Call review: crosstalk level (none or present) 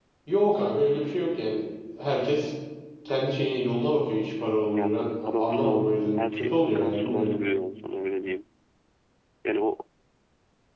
present